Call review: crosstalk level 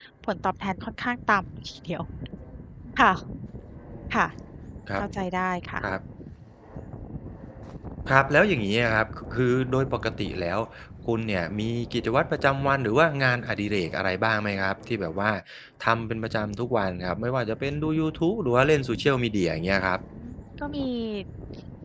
none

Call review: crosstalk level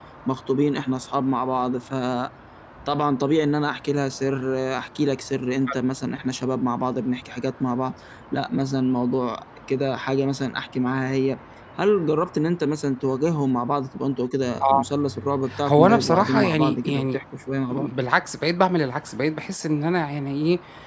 present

